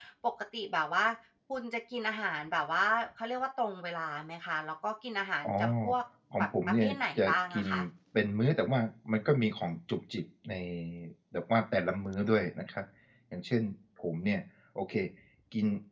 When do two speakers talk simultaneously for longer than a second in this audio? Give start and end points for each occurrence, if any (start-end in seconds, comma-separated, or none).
6.4-7.7